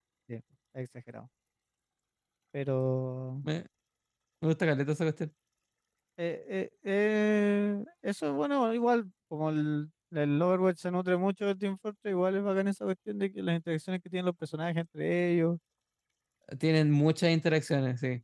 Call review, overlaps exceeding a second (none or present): none